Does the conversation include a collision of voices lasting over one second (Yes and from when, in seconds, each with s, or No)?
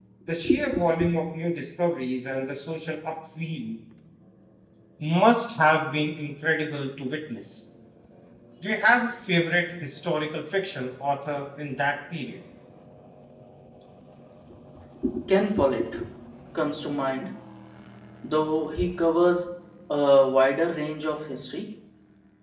No